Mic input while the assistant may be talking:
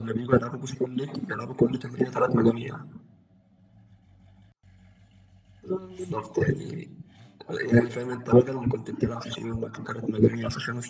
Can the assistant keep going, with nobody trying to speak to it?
Yes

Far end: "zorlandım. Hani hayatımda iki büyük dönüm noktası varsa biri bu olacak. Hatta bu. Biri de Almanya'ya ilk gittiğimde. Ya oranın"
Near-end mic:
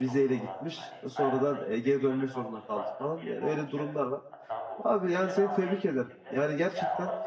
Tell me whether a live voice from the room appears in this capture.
Yes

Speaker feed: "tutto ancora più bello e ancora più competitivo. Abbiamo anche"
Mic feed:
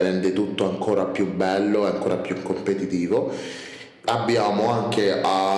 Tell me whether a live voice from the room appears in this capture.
No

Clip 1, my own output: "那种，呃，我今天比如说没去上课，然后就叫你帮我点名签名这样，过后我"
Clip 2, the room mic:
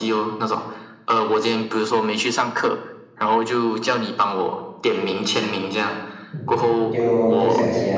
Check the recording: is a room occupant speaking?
Yes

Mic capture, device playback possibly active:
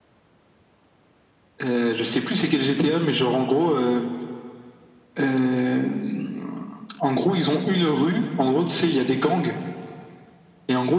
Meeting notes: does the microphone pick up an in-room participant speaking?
No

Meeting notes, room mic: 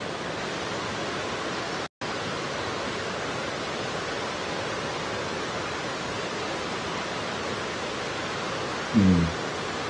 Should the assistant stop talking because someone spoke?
Yes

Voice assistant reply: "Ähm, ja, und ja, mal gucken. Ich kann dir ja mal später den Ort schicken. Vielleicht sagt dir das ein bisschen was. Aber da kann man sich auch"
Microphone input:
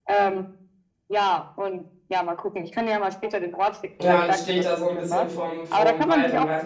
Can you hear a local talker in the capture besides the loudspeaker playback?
Yes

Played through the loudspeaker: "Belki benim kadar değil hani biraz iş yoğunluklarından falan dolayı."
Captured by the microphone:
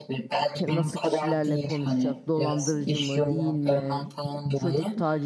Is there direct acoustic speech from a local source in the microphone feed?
Yes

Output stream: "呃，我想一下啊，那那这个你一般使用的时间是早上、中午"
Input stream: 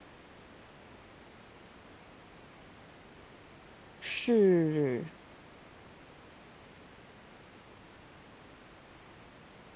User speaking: Yes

